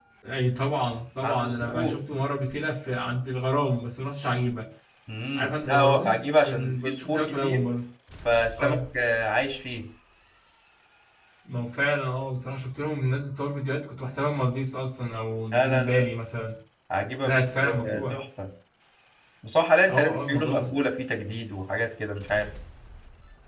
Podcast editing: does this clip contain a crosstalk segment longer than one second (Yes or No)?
Yes